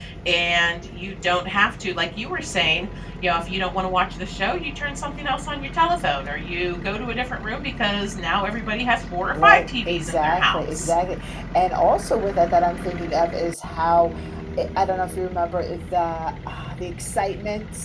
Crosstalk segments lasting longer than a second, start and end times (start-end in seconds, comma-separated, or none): 9.3-10.9